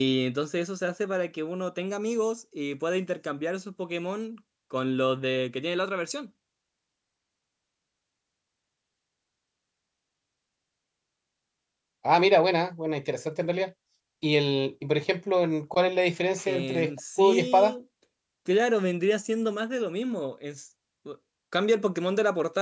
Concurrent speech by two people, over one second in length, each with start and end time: 16.5-17.7

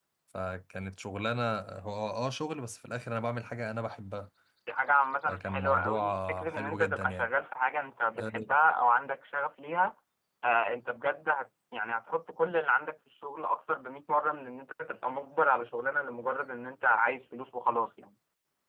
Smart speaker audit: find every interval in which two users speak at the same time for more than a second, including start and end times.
5.3-7.3

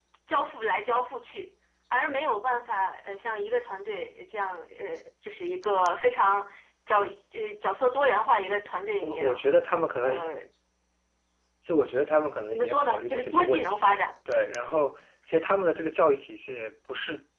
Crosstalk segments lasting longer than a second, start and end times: 12.5-14.0

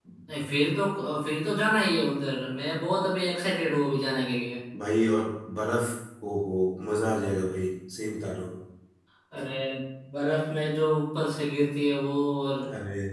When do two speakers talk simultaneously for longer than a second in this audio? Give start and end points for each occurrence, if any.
none

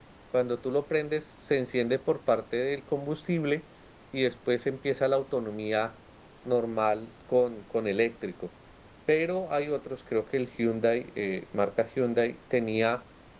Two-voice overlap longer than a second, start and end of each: none

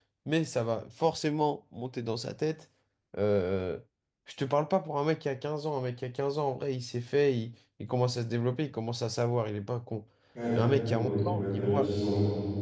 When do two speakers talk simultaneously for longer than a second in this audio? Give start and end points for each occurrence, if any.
10.6-11.9

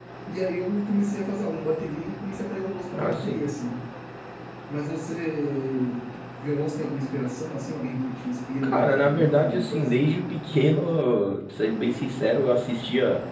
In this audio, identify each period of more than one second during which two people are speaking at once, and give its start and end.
8.6-10.0

